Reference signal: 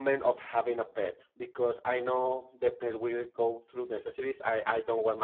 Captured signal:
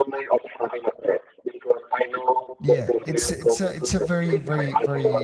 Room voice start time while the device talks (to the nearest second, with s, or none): 3 s